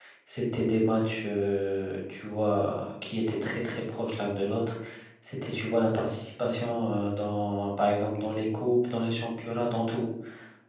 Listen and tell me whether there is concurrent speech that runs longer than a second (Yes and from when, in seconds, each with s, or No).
No